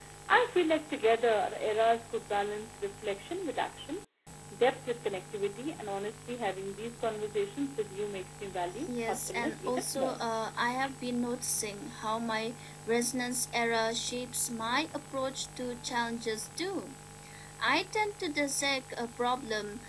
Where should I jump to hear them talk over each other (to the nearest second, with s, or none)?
9 s